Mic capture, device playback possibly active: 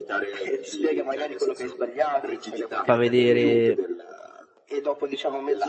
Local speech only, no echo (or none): fa vedere